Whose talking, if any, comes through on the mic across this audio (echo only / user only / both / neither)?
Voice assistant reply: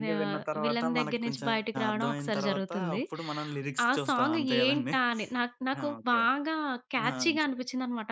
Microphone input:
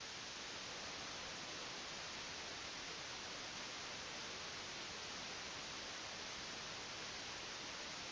neither